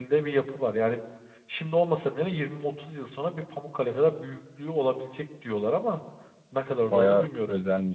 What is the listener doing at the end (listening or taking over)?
taking over